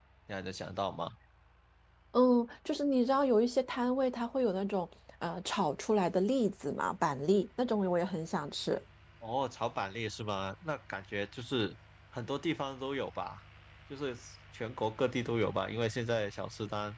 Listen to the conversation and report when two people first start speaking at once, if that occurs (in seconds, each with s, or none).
none